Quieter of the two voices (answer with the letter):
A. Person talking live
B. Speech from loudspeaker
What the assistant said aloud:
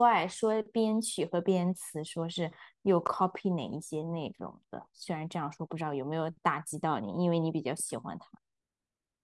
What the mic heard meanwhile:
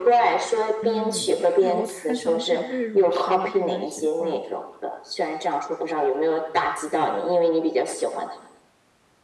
A